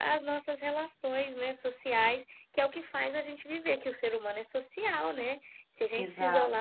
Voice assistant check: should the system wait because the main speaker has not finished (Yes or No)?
Yes